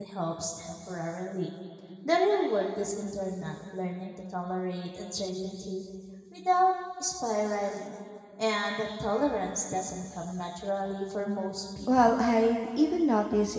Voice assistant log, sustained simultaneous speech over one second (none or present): none